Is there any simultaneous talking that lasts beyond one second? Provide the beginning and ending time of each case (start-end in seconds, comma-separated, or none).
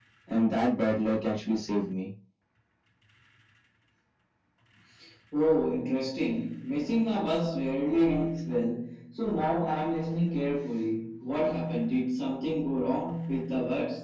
none